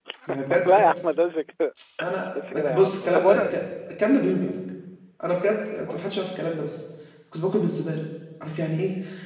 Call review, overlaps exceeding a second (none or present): present